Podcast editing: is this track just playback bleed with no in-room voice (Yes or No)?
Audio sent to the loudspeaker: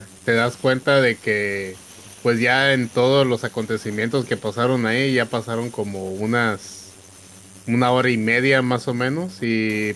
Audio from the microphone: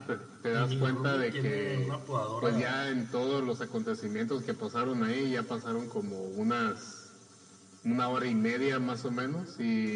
No